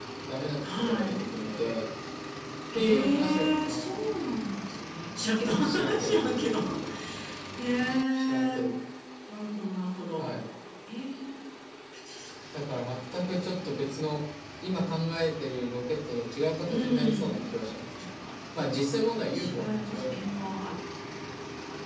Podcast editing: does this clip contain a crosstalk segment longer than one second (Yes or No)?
Yes